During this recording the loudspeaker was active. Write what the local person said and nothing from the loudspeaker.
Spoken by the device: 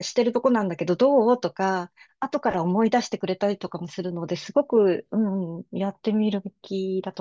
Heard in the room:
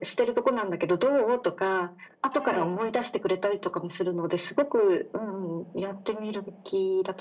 はい、

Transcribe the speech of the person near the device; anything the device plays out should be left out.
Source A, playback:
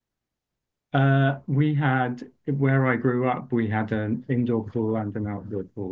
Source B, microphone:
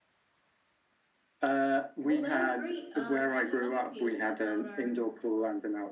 Well, that was great uh catching up with you about our

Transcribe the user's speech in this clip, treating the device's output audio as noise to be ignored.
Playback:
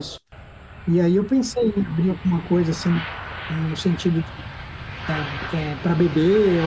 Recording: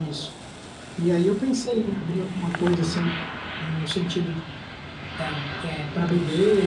Uhum.

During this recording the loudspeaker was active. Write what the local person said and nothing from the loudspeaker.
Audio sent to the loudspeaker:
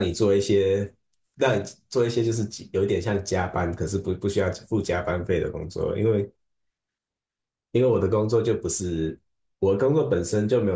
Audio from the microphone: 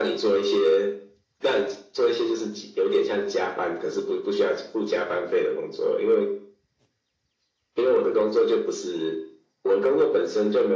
none

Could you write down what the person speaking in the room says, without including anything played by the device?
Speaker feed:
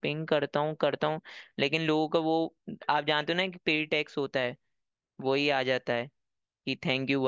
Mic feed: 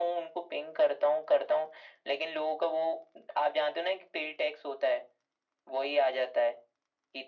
none

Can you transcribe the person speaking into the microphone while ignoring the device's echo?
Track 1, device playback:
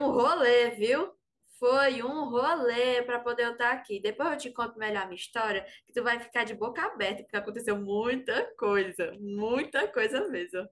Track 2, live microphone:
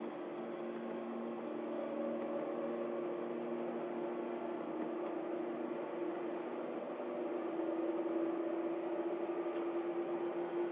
none

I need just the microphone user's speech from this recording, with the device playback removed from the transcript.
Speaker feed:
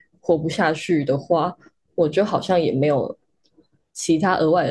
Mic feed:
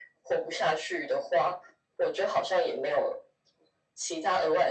none

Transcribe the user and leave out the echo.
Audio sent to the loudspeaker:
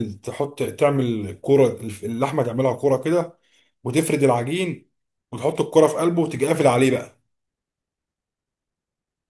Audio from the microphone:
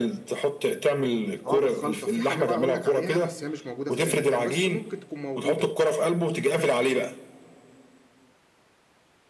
اه بالخلطه في حاجه بقى اقول لك عليها بس هي مش موجوده في اي مكان بس ممكن تكون موجوده

